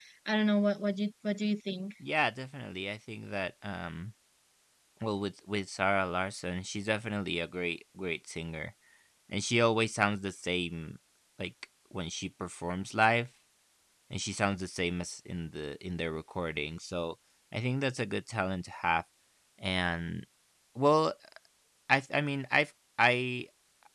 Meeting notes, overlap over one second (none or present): none